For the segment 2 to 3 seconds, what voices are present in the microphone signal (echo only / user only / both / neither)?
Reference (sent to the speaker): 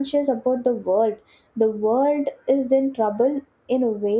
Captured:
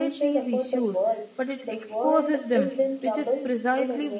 both